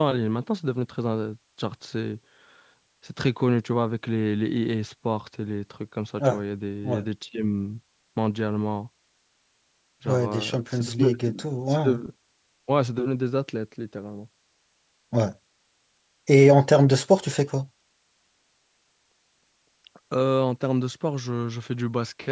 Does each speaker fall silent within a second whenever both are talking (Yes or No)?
No